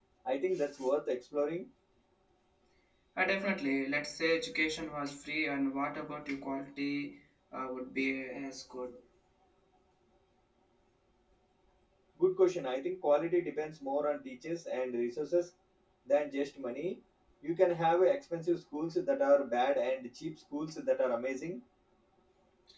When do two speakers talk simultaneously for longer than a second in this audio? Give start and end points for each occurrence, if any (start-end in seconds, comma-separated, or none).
none